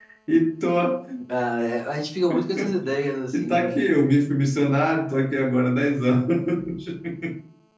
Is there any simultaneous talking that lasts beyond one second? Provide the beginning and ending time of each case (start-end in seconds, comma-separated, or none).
none